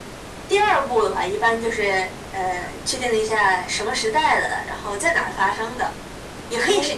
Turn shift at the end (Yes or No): No